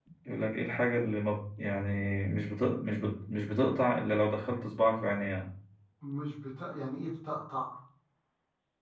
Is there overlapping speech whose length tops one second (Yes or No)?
No